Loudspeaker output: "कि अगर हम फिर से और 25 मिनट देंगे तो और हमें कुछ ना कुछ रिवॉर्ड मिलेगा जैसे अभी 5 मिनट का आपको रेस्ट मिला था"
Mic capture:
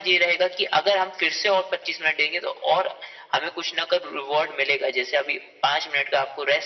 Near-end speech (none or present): none